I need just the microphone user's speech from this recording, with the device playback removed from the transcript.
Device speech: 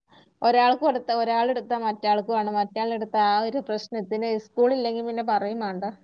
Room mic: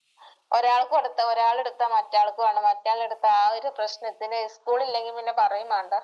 none

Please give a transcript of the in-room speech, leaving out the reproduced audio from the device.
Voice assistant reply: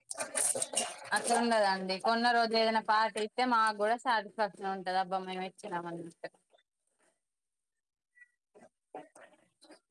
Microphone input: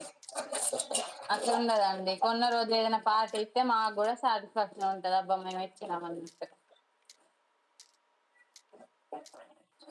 none

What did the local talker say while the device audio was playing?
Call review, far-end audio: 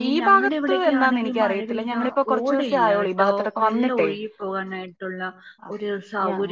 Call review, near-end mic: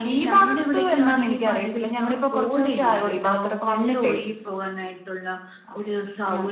none

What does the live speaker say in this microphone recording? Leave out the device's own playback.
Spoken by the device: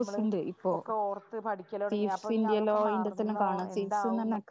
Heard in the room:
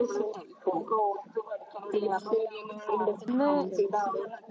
ഇന്ന്

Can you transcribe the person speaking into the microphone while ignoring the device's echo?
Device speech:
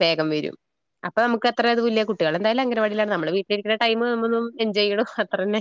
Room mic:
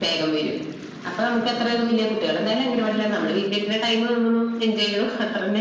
ഉം

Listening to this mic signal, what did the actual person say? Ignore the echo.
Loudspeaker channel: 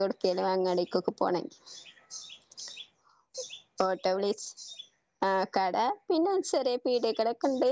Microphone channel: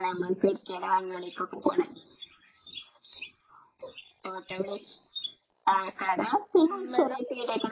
ഉം വെള്ളം

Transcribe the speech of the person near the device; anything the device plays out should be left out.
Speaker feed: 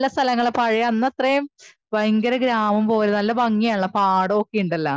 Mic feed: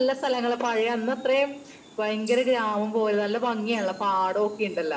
none

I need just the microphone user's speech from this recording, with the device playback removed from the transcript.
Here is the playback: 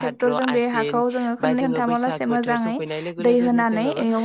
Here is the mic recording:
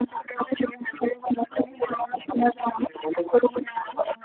none

